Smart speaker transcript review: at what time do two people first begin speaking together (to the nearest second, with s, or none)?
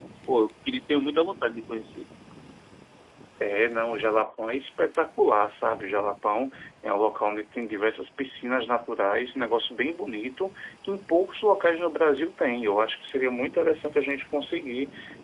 none